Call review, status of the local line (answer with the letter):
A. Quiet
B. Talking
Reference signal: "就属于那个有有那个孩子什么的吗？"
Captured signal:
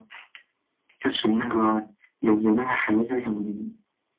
A